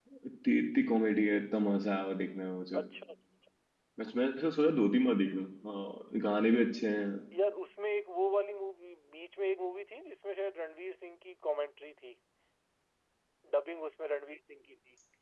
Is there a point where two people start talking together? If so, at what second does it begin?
none

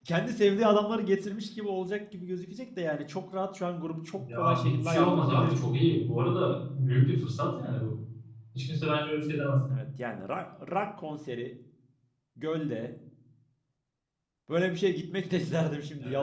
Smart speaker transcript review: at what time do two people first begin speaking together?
4.2 s

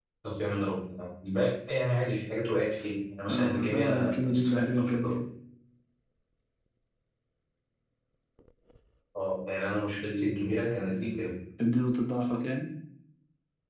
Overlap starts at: 3.3 s

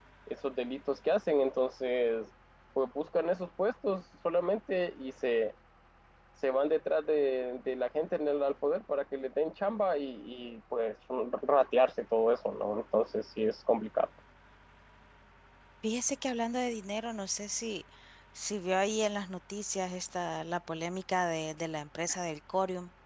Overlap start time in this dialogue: none

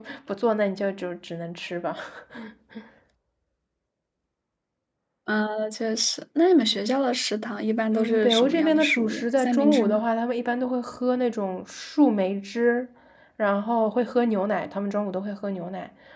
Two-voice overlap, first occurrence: 7.9 s

